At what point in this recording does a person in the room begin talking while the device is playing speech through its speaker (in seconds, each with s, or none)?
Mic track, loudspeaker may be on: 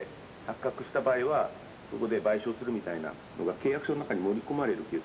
none